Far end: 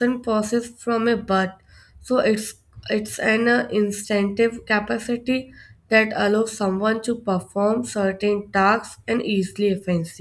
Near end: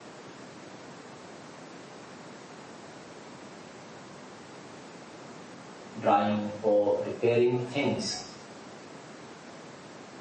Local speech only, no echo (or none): drawing or repairing things